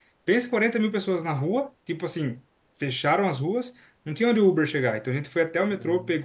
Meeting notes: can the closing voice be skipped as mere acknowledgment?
Yes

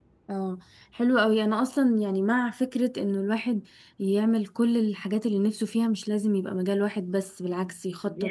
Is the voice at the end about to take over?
No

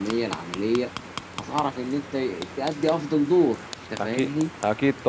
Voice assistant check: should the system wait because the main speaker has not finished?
No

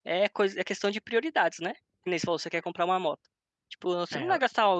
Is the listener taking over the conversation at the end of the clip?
No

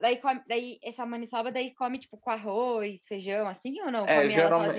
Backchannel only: No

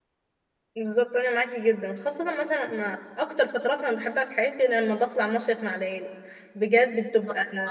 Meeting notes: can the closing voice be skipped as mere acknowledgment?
Yes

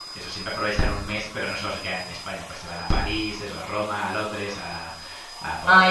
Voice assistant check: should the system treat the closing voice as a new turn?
Yes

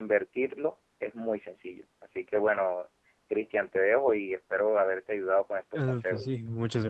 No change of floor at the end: No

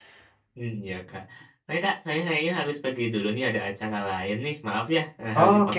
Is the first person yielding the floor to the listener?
Yes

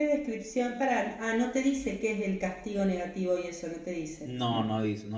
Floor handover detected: Yes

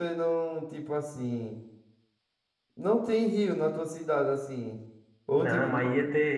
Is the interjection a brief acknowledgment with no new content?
No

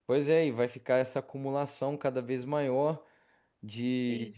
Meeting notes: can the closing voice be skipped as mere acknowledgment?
Yes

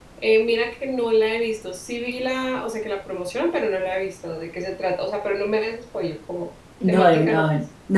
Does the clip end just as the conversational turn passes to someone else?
Yes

